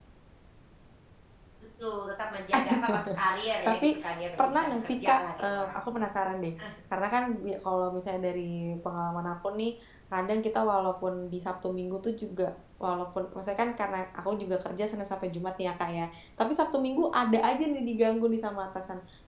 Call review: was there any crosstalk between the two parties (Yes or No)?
Yes